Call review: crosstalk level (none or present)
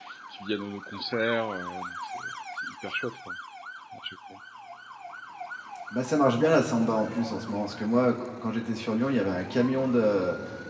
none